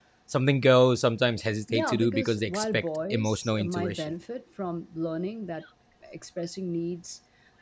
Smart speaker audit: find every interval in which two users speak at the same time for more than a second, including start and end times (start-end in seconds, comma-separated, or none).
1.7-4.1